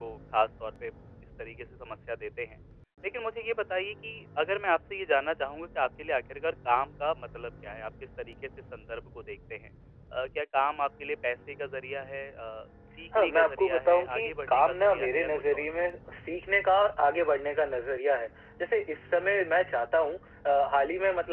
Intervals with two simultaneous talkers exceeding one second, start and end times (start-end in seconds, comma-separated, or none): 13.2-15.6